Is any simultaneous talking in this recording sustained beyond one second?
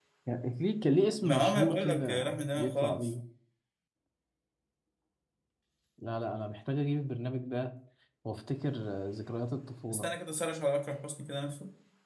Yes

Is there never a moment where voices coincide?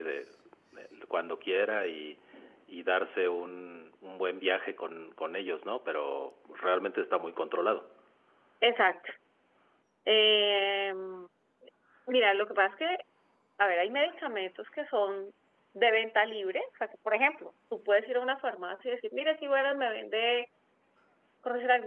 Yes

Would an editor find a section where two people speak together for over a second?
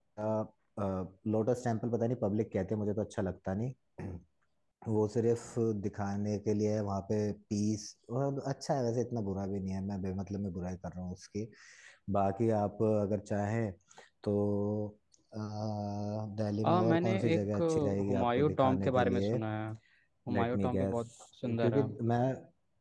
Yes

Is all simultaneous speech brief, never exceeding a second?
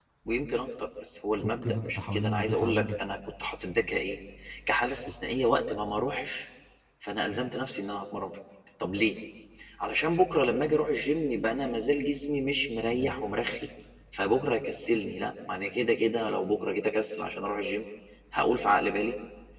No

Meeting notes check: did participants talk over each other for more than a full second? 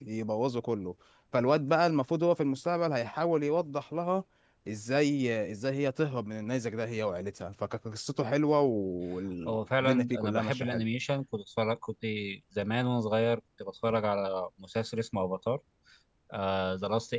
Yes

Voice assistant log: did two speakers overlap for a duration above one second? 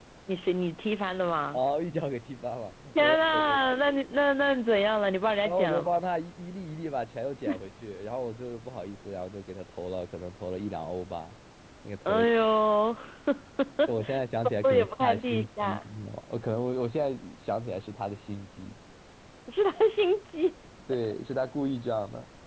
Yes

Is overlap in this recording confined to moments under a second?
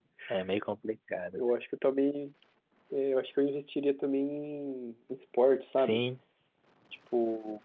Yes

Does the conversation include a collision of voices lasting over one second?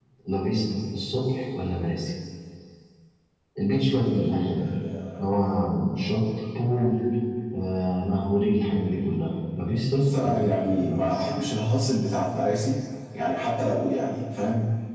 Yes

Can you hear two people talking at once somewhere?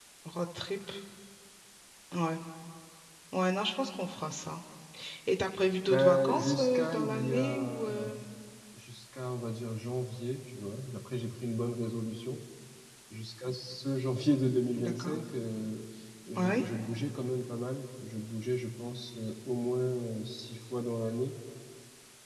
Yes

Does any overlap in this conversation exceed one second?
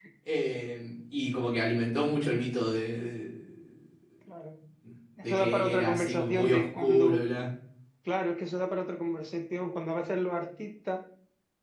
Yes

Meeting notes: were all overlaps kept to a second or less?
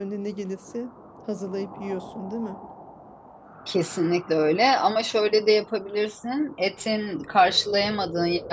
Yes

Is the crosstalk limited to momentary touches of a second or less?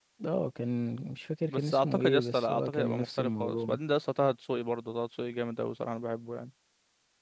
No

